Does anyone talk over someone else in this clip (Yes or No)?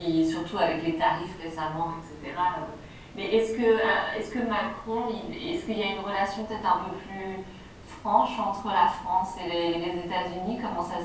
No